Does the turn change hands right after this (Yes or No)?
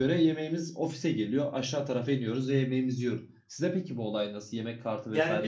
Yes